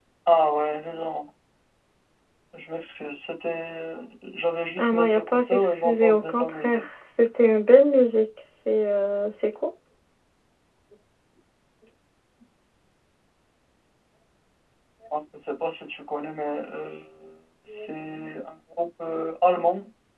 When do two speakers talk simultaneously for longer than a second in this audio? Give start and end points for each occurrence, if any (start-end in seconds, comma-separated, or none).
4.8-6.8